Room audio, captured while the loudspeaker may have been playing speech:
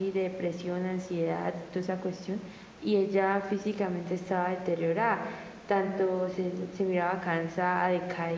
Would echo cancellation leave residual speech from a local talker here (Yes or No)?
No